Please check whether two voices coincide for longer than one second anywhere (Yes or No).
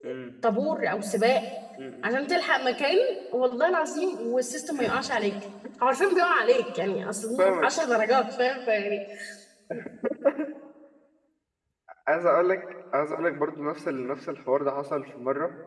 No